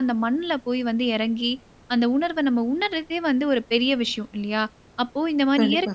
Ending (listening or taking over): listening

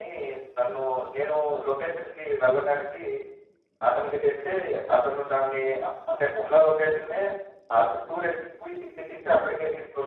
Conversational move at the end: taking over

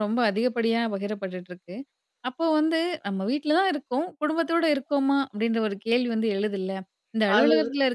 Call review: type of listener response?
listening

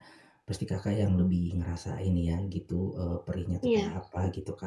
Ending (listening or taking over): listening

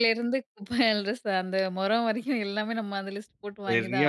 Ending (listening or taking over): taking over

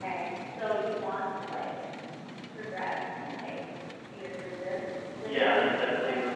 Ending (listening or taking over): taking over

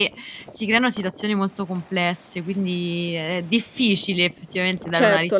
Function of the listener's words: taking over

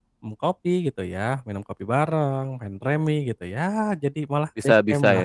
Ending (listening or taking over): taking over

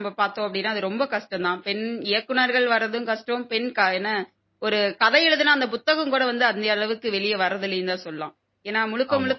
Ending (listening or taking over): listening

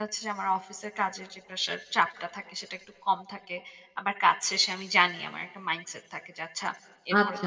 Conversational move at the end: taking over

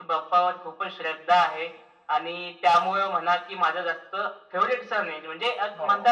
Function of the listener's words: listening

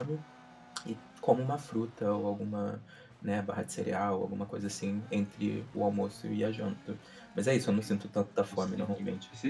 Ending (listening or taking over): taking over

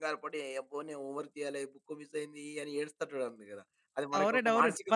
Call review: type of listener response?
taking over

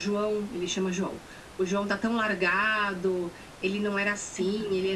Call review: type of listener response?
listening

